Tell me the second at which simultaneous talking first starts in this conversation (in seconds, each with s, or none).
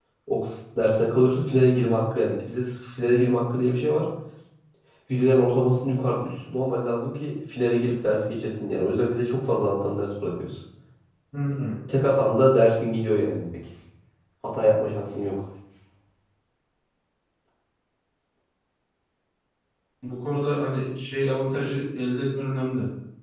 none